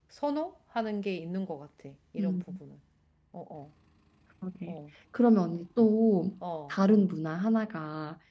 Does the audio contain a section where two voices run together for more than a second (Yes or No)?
No